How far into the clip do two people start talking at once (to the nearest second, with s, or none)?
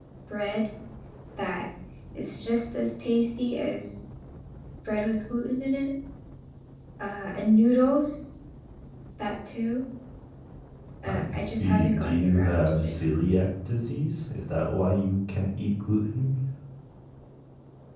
11 s